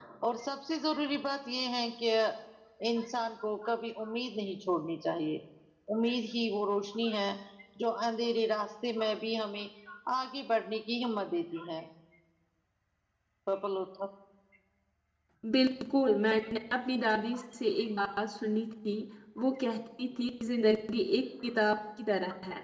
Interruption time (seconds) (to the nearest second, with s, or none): none